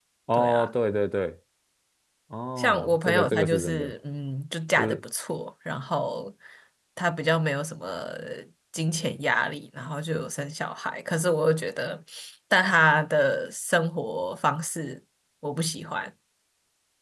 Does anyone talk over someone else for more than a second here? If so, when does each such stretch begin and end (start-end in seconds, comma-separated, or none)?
2.6-3.9